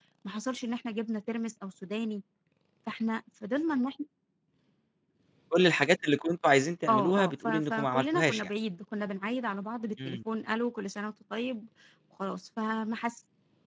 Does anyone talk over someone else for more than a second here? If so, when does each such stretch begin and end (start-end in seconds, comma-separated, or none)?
6.9-8.5